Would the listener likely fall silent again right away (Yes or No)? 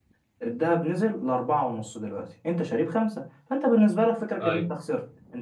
Yes